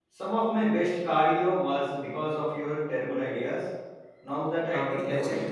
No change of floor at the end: No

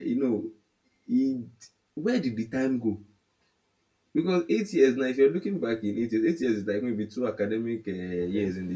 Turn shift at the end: No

